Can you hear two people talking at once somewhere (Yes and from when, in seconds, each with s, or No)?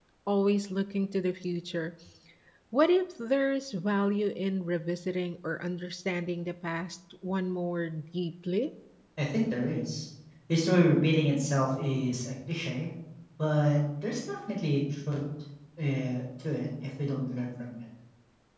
No